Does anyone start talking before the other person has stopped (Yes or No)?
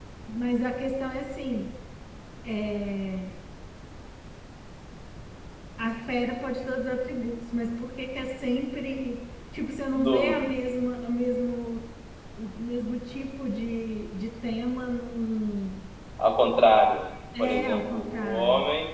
Yes